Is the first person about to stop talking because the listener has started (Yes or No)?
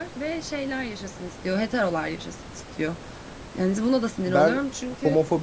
Yes